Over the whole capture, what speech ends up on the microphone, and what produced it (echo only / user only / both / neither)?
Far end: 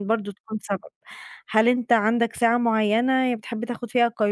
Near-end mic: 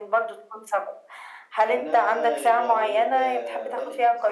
both